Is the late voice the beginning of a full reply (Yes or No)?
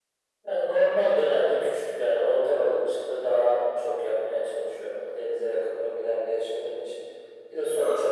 No